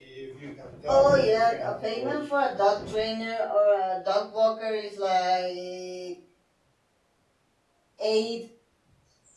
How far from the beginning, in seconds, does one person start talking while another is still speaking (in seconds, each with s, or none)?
0.9 s